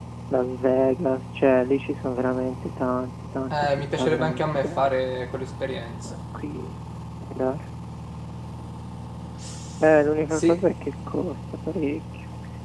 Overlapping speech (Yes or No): Yes